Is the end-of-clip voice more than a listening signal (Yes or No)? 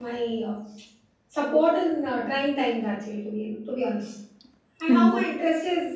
No